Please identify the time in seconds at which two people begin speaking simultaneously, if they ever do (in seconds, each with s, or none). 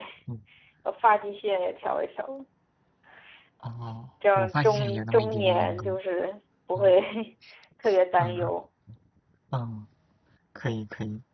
4.3 s